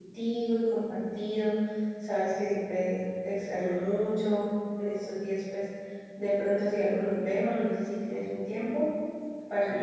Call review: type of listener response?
taking over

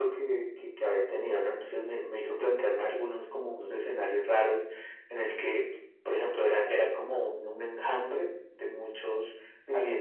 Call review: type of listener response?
listening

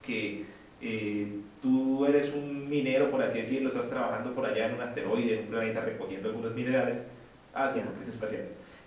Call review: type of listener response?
listening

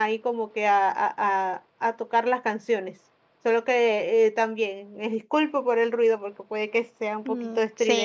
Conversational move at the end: taking over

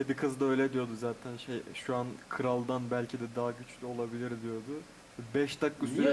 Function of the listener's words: listening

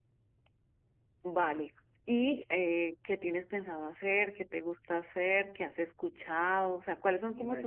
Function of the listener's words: listening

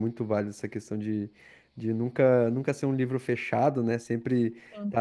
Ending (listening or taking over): listening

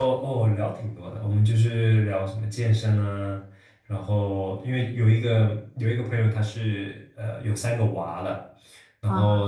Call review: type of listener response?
listening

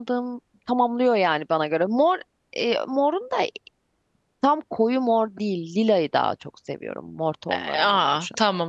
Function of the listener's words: taking over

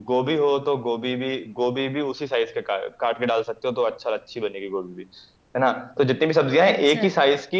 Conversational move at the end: listening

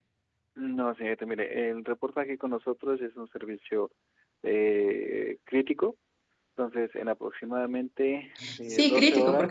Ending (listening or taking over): taking over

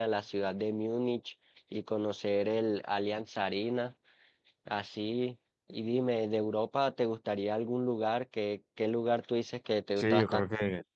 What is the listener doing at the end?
taking over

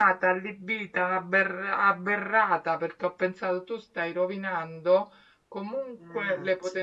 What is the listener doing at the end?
listening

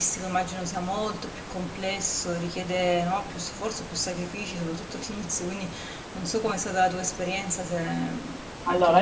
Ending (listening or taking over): taking over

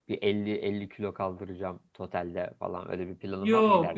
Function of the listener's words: taking over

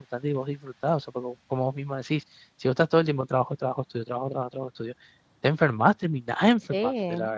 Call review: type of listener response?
taking over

